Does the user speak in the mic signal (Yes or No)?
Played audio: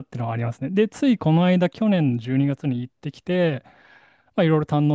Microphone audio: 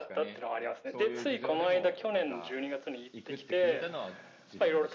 Yes